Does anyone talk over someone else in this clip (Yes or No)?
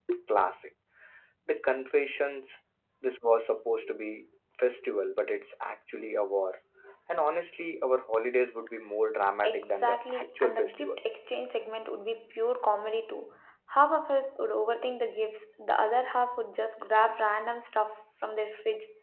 Yes